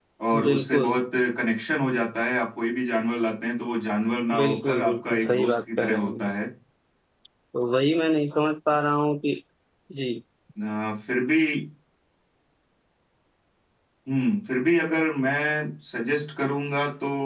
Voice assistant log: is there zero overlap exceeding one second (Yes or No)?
No